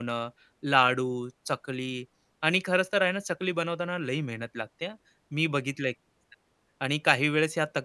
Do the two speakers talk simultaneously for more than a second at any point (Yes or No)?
No